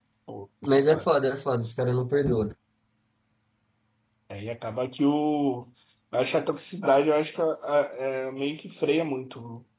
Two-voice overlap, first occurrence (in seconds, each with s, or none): none